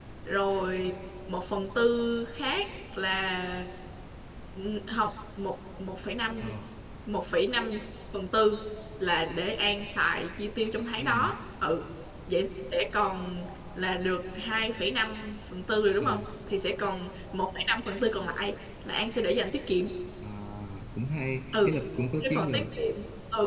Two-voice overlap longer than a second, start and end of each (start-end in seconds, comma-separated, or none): none